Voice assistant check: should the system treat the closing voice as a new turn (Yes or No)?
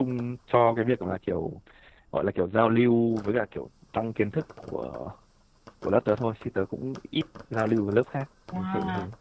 Yes